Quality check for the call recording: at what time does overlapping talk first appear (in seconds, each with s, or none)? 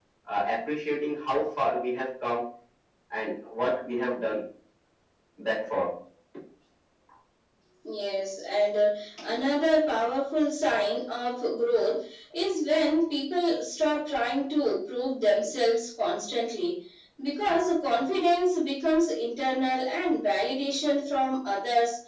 none